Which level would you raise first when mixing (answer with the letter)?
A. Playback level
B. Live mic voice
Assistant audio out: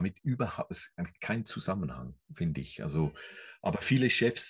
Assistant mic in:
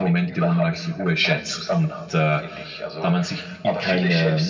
A